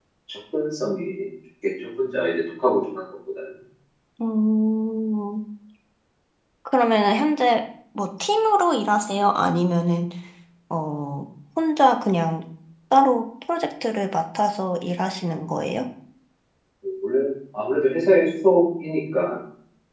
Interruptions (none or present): none